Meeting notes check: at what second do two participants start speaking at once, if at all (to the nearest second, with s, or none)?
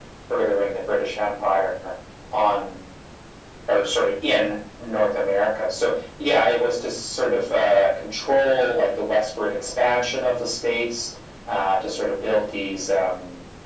none